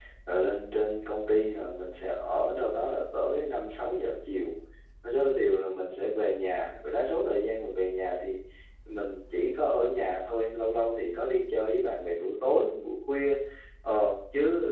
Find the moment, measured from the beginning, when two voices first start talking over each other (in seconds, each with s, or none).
none